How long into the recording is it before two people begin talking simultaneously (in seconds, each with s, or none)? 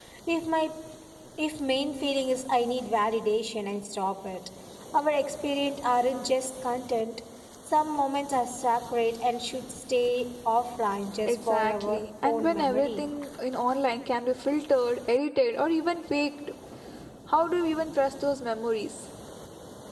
11.3 s